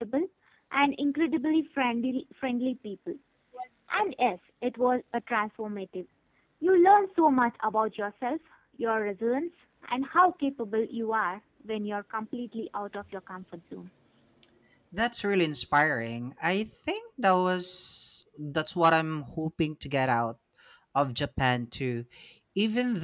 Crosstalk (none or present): none